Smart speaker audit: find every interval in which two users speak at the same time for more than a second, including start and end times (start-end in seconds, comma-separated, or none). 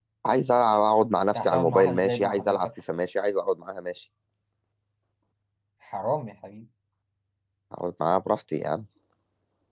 1.4-2.7